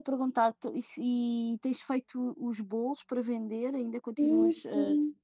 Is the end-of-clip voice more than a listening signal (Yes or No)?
Yes